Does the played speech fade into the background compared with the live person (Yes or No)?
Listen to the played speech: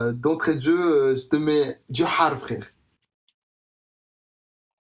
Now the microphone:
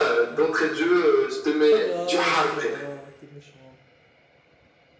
No